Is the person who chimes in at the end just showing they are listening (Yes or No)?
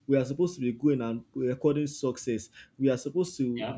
Yes